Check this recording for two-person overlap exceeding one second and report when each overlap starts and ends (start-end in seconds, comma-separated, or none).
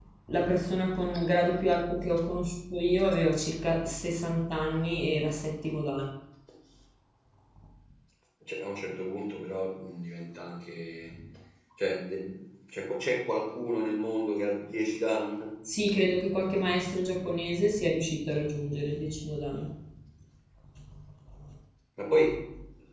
none